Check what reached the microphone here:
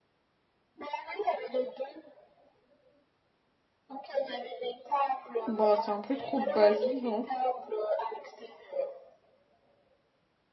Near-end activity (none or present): present